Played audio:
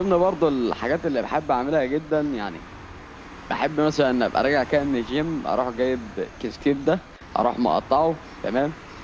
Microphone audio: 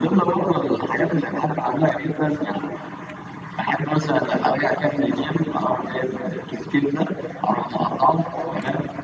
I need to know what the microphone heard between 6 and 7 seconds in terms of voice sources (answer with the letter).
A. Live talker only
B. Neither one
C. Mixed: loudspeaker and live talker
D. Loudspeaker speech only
D